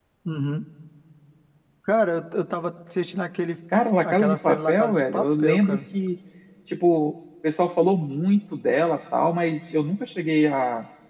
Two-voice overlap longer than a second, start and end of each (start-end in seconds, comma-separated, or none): 4.0-5.8